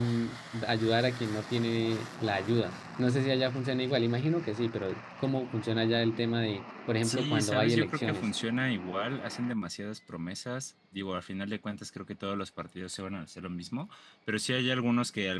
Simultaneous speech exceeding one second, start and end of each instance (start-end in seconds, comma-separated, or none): 7.0-8.3